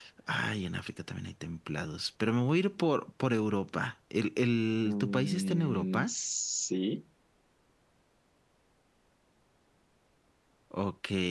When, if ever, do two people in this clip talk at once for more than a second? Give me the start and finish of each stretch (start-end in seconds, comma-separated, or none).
4.8-6.1